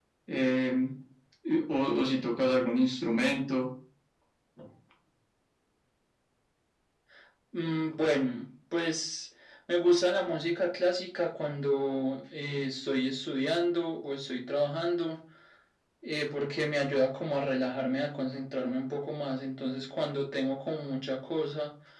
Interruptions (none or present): none